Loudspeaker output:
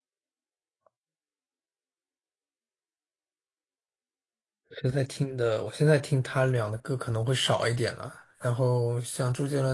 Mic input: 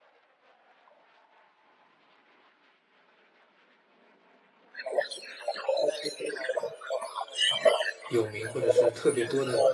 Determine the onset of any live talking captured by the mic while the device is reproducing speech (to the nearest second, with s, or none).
8 s